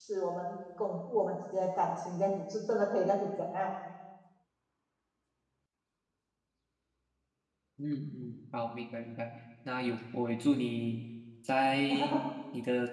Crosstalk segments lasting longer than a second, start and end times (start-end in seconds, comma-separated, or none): none